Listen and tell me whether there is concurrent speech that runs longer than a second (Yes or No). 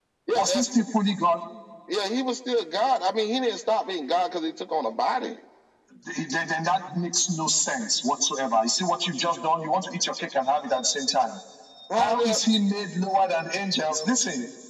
No